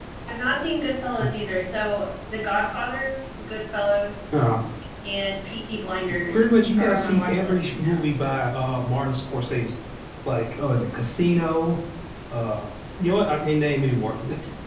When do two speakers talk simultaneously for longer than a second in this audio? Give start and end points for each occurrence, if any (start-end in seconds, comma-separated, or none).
6.8-8.1